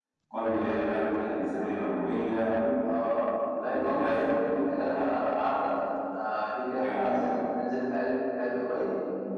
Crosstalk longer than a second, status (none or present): present